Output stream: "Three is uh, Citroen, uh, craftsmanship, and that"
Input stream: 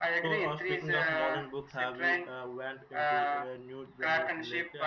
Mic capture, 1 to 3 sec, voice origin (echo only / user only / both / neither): both